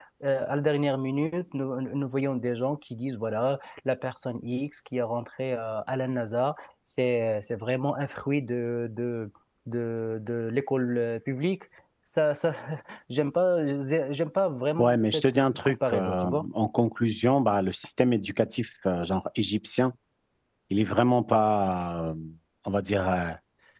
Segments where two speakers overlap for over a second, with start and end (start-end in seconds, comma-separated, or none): 14.8-16.4